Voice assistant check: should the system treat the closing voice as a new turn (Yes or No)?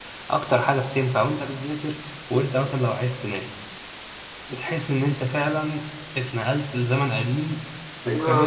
Yes